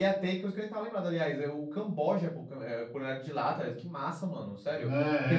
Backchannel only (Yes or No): No